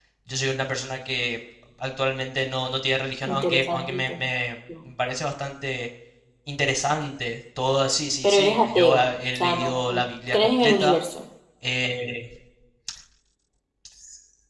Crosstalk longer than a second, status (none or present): present